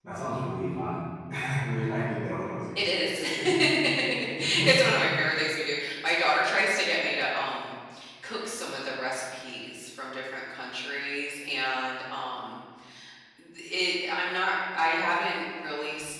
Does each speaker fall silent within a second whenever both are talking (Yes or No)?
Yes